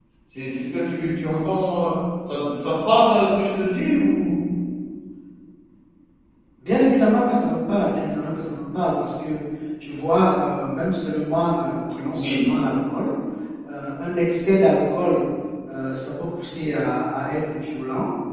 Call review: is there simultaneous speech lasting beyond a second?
No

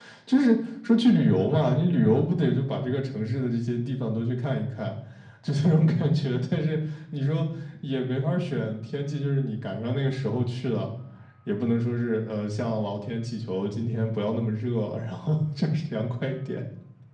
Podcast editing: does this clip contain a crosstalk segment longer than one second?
No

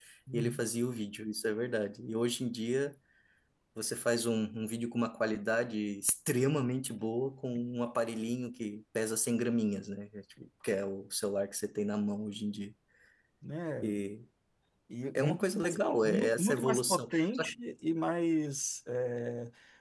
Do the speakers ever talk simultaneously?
Yes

